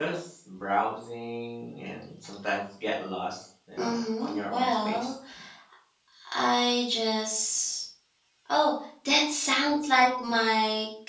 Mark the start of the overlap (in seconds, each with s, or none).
3.8 s